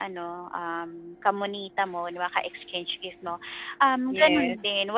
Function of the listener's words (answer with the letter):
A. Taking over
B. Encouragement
B